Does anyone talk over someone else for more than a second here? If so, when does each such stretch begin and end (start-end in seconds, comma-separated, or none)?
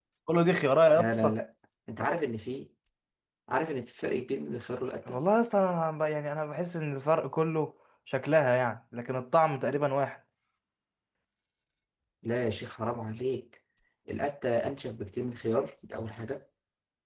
none